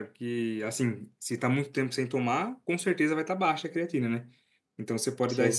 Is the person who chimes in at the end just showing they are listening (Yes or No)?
Yes